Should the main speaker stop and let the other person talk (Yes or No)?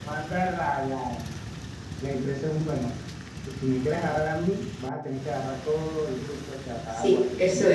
Yes